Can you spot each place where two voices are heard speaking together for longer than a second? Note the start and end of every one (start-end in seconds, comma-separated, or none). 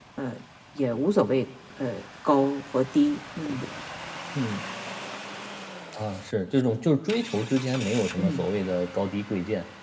none